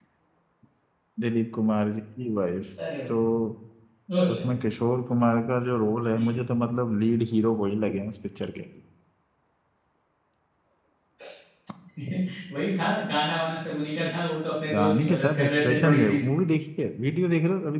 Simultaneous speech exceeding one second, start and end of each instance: 14.7-16.2

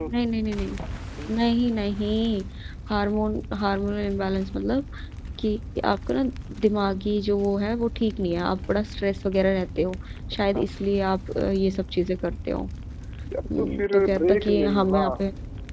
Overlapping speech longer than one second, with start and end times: 13.6-15.1

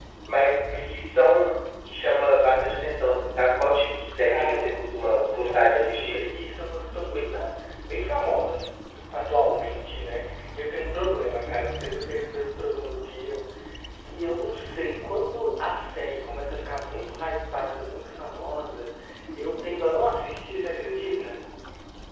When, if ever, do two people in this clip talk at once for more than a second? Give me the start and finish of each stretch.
4.2-6.2

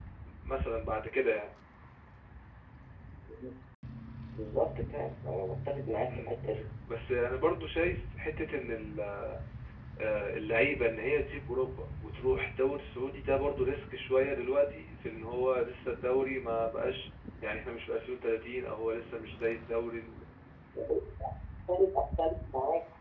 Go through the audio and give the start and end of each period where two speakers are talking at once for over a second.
none

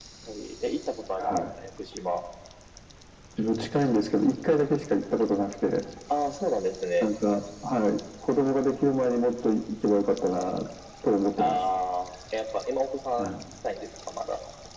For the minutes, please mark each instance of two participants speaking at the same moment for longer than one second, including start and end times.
none

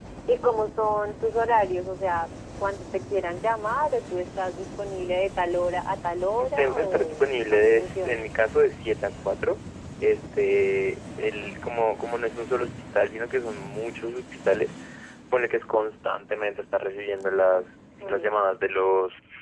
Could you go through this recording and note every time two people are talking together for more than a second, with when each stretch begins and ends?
6.6-8.3

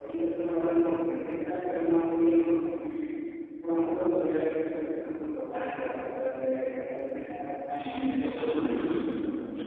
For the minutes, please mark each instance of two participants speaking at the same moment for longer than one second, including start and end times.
7.7-9.0

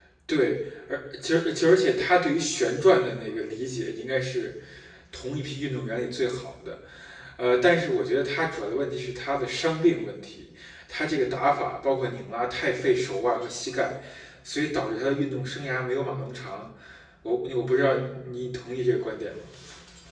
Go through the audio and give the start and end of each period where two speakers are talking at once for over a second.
none

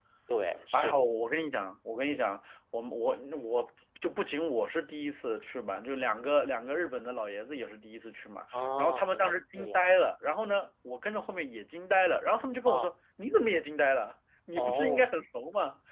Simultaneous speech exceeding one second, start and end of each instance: 8.5-9.8

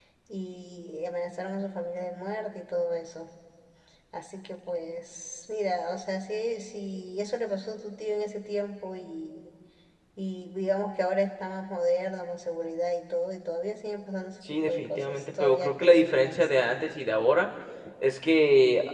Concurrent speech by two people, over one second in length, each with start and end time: 14.7-16.5

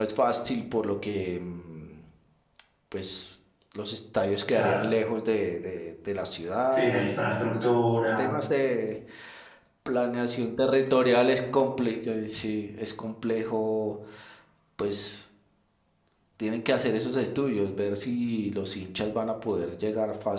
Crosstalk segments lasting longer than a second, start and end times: none

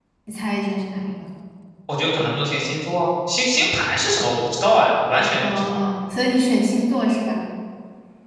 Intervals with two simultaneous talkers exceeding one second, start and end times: none

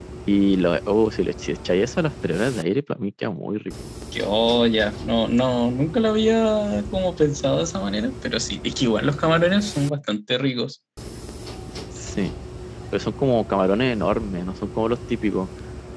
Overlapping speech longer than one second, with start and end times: none

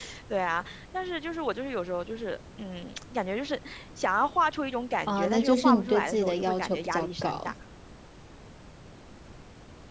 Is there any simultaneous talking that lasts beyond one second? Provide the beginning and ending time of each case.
5.1-7.5

